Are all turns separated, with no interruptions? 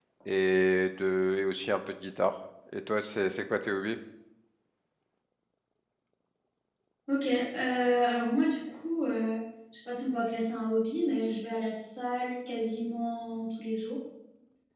Yes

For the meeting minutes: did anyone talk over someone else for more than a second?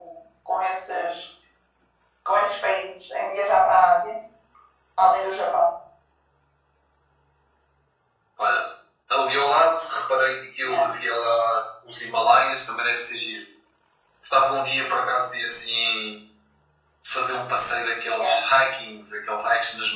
No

